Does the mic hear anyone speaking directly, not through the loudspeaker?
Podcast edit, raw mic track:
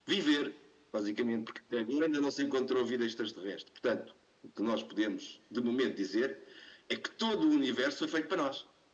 No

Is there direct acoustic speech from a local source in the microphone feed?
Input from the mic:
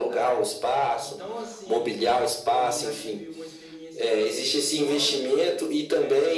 Yes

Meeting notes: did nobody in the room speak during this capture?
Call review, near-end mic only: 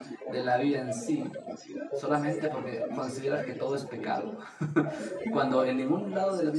No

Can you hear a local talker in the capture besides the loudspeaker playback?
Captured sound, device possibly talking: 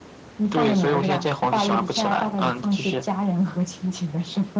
No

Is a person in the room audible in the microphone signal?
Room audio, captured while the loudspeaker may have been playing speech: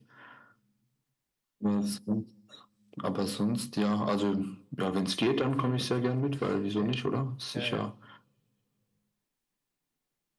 Yes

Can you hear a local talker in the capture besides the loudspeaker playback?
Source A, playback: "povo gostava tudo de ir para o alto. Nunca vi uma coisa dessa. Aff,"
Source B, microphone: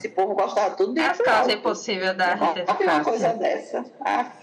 Yes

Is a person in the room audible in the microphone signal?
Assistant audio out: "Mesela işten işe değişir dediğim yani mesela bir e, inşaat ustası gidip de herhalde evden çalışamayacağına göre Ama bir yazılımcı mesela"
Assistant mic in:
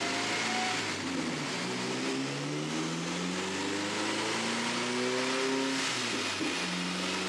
No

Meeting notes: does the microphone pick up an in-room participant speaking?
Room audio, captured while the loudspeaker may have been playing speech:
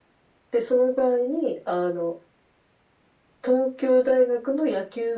No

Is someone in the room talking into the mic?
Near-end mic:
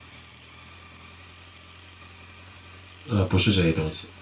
Yes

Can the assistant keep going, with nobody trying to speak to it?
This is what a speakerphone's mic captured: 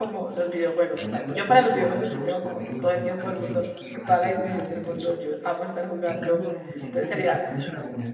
No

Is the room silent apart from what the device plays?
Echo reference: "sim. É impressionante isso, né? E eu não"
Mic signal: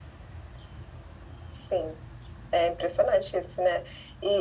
Yes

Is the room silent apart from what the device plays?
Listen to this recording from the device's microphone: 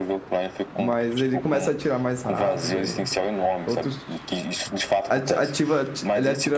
No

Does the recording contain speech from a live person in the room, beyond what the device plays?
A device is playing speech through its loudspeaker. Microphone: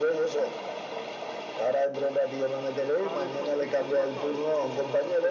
Yes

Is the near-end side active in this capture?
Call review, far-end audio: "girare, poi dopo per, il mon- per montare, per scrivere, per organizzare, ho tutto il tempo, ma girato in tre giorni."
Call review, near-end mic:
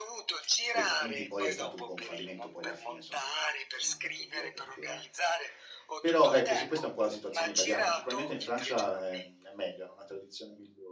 Yes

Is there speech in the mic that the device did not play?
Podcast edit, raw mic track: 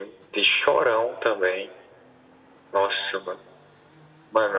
No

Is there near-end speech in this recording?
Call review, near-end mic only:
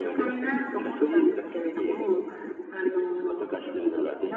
No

